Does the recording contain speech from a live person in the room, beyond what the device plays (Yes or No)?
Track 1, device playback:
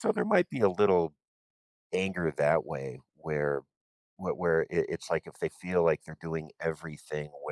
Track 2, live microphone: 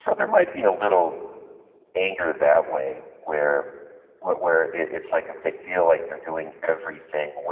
No